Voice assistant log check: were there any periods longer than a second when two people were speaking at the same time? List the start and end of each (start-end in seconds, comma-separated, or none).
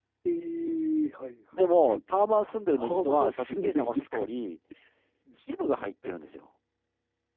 2.7-4.3